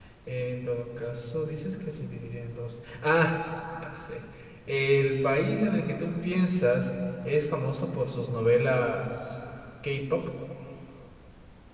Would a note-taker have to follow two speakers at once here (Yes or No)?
No